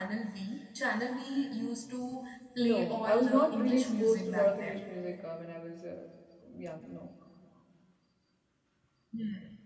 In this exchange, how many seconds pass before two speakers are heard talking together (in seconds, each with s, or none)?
2.6 s